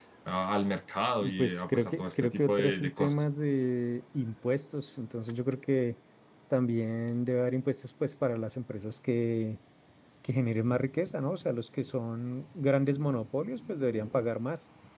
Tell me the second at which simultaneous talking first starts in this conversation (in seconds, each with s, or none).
1.2 s